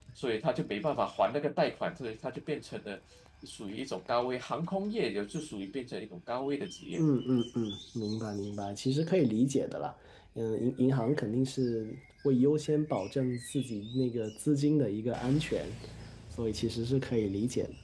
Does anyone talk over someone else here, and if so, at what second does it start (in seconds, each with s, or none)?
none